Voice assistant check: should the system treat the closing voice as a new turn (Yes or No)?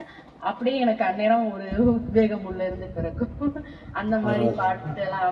No